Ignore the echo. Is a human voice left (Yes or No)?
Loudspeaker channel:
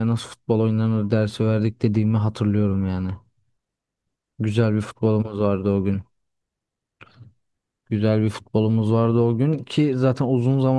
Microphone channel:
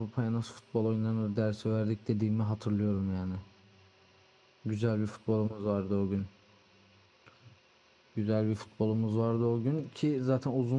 No